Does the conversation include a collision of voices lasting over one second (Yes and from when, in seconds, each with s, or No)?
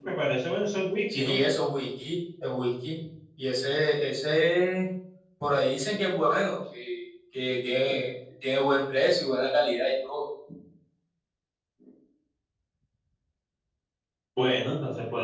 No